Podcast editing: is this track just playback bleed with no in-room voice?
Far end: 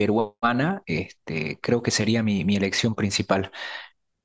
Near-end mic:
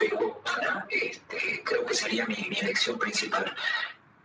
Yes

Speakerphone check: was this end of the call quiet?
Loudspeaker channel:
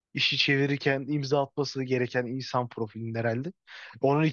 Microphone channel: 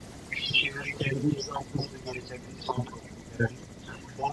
Yes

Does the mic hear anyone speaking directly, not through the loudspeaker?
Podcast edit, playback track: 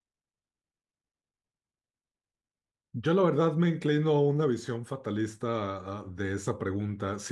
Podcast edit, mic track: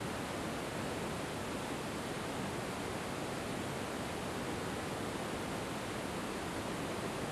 No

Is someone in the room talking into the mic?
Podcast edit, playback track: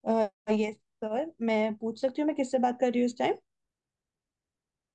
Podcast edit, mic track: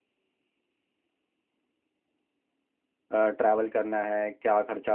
Yes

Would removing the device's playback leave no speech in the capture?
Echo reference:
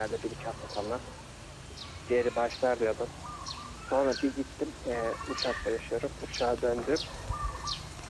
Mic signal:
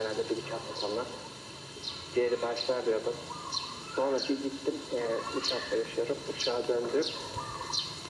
Yes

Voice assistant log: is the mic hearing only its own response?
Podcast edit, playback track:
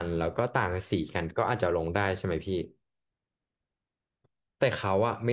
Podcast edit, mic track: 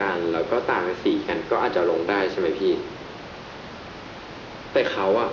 Yes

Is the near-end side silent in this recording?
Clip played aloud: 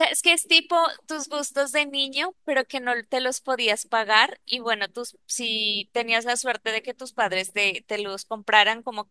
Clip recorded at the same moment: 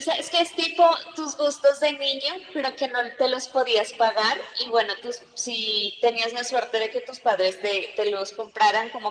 Yes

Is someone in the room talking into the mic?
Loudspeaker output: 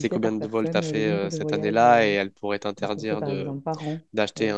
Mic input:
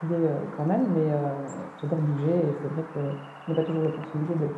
Yes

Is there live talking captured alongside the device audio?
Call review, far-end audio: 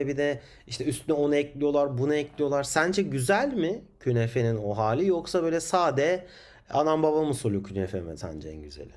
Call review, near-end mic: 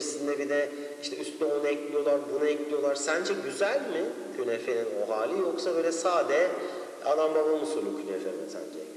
No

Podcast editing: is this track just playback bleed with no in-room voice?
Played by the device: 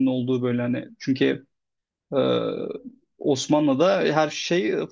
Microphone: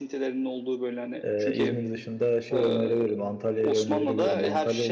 No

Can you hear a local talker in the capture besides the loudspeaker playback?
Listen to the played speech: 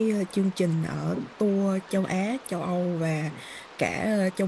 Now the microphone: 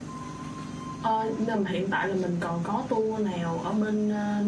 Yes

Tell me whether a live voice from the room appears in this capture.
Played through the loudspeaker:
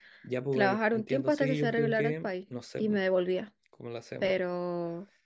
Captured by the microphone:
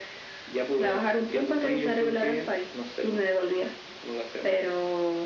No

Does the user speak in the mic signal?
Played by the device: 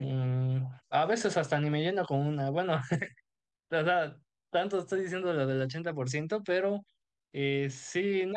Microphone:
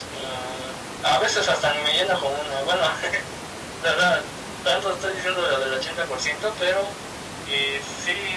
No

